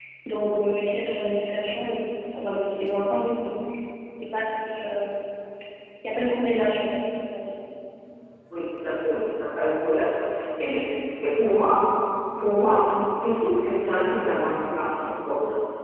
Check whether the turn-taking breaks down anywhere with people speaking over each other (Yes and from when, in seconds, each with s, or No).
No